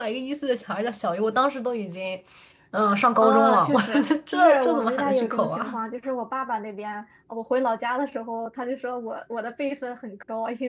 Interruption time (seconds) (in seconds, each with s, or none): 3.2 s